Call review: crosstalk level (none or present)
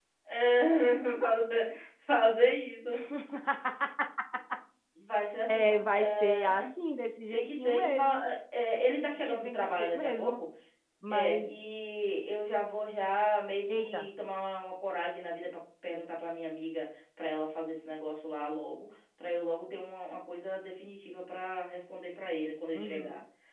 present